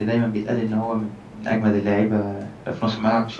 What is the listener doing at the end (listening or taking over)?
taking over